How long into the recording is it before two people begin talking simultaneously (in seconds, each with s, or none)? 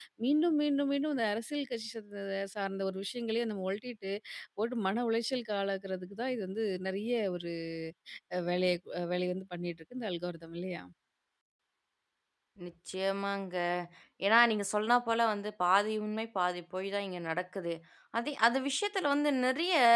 none